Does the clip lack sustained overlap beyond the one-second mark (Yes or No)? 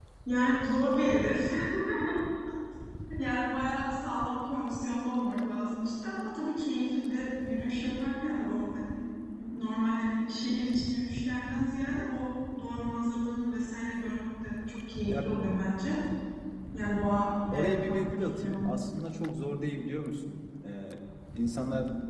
No